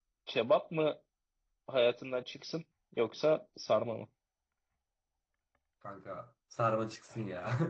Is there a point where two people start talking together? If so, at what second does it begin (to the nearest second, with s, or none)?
none